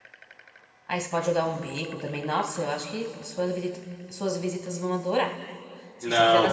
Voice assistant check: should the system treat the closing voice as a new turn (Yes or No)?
Yes